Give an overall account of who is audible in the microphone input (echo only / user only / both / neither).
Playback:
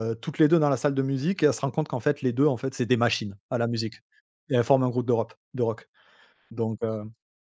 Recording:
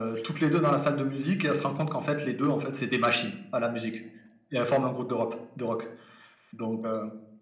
echo only